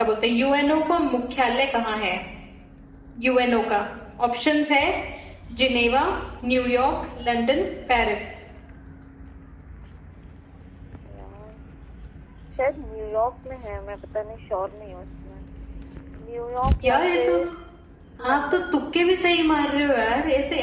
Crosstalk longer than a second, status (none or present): none